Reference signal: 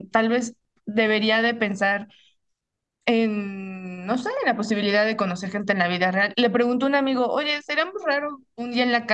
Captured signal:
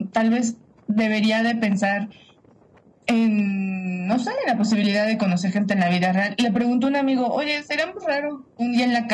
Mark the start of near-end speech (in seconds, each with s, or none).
none